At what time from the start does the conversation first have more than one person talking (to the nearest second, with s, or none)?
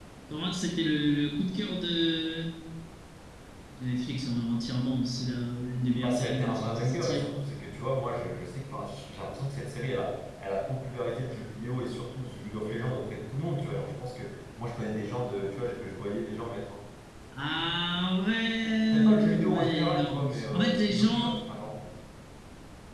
6 s